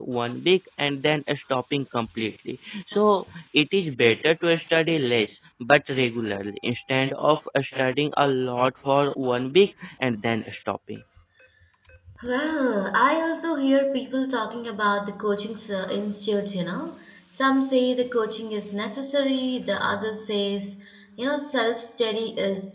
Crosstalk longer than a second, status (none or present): none